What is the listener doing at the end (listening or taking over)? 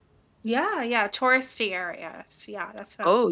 taking over